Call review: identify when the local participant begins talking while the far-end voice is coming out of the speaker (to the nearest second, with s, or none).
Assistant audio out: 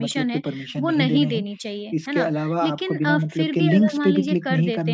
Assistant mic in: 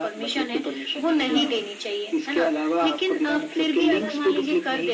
1 s